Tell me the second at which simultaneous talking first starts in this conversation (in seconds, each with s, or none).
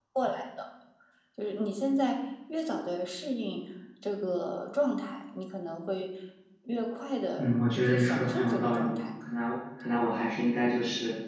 7.4 s